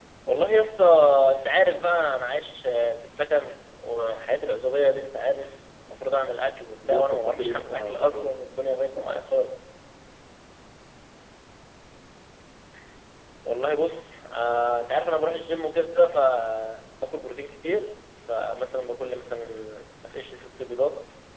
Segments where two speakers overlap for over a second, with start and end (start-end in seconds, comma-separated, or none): 6.9-8.3